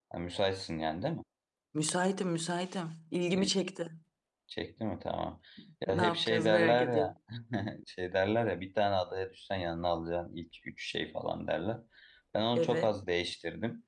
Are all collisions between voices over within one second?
No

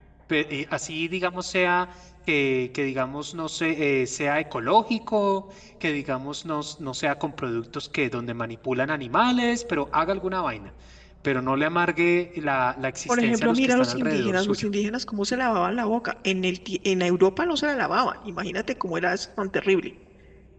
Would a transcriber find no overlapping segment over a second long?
No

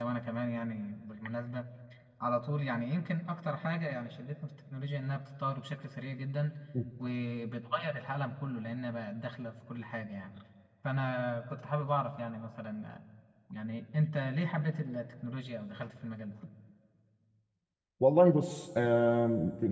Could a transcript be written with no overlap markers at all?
Yes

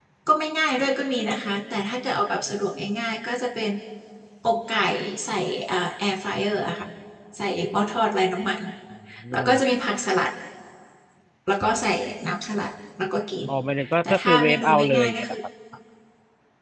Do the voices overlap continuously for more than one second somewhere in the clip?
Yes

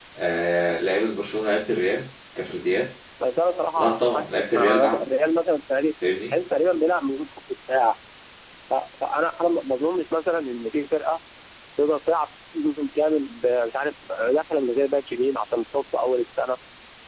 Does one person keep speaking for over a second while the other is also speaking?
Yes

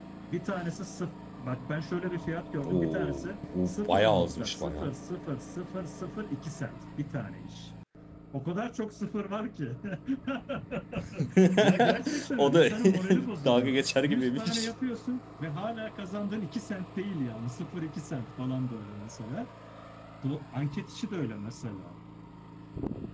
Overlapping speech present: Yes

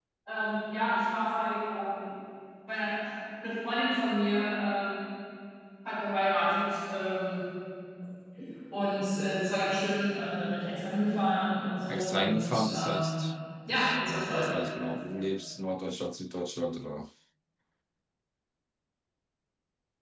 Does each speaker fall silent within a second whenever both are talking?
No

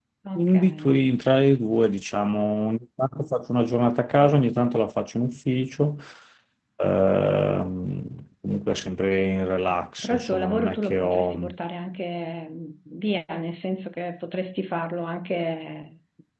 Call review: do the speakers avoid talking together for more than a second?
No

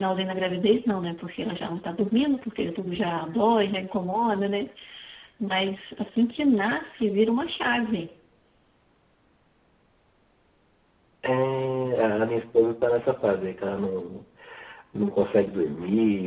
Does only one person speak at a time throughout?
Yes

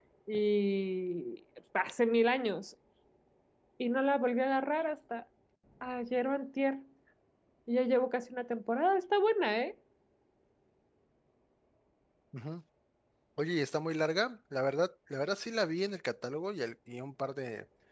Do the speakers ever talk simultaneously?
No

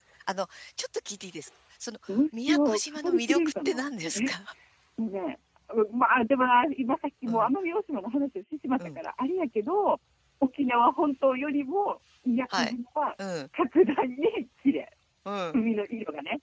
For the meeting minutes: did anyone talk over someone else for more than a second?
Yes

